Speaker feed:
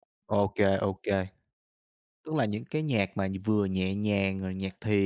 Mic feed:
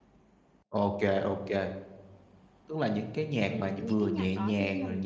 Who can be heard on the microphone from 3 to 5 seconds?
both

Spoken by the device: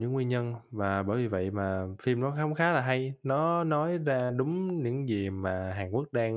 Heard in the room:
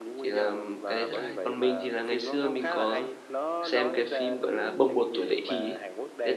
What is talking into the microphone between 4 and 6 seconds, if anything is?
both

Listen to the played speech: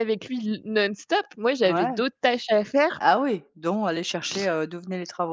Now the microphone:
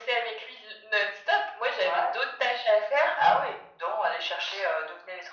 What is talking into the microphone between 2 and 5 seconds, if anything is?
echo only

